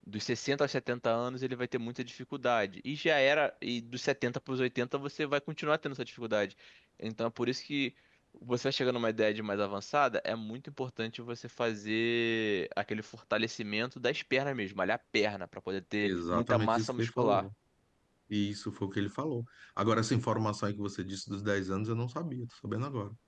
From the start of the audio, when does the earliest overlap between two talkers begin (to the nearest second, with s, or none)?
16 s